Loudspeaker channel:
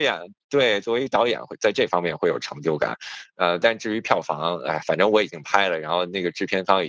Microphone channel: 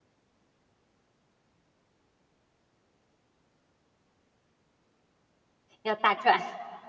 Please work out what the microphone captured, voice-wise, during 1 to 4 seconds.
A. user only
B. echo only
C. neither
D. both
C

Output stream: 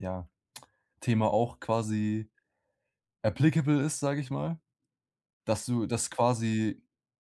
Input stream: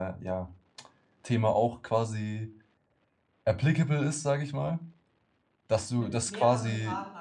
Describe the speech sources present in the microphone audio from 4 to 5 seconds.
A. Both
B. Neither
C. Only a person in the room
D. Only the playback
D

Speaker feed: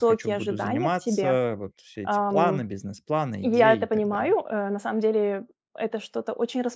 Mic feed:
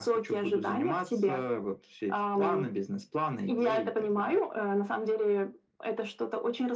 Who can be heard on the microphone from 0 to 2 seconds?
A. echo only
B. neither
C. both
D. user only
A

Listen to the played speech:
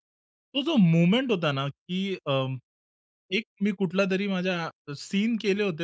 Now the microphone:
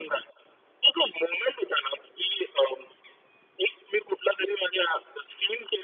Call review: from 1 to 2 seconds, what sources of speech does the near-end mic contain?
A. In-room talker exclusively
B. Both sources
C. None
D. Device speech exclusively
D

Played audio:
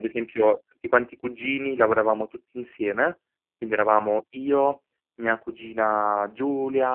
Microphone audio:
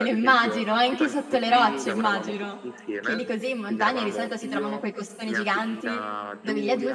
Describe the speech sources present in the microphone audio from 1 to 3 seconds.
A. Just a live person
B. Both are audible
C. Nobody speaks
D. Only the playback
B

